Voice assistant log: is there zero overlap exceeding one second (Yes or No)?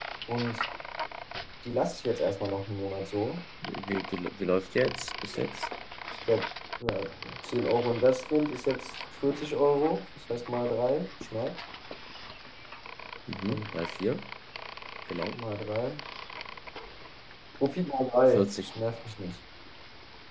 Yes